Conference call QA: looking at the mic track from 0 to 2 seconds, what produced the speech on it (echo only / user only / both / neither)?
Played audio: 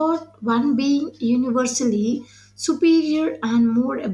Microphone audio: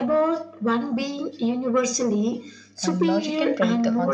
echo only